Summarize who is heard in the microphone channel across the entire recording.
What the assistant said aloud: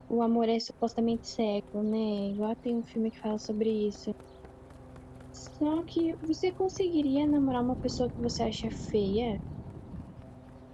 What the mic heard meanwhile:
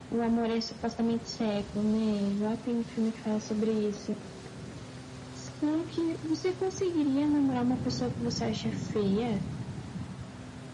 echo only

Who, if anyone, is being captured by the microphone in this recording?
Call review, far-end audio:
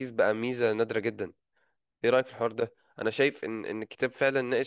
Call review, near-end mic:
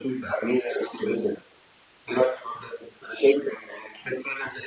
echo only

